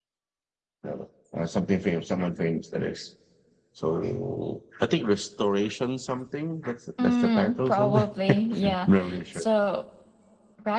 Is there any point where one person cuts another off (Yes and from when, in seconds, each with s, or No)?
Yes, from 7.0 s